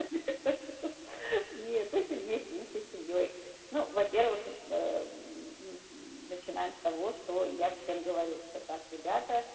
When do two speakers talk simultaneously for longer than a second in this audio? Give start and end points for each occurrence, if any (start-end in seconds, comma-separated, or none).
none